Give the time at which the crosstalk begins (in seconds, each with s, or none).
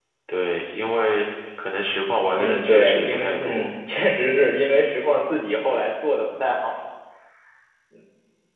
2.3 s